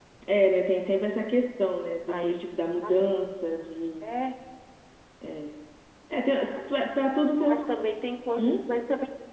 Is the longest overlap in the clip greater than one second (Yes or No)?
No